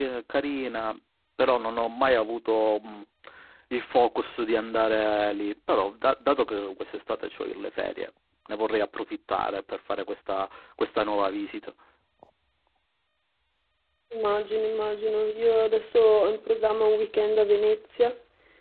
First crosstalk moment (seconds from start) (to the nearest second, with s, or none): none